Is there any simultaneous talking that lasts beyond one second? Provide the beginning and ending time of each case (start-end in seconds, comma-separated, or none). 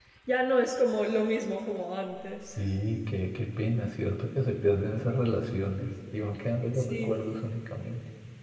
none